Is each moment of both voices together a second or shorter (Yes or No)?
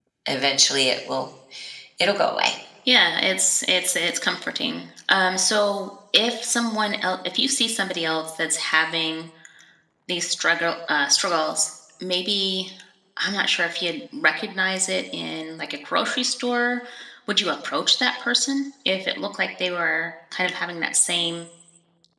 Yes